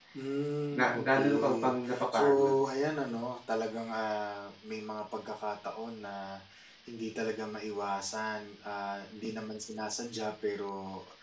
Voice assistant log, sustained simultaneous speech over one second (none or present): present